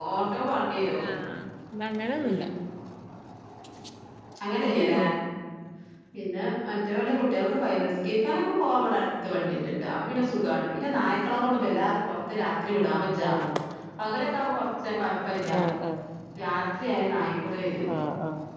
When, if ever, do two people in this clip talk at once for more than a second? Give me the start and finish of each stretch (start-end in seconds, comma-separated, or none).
none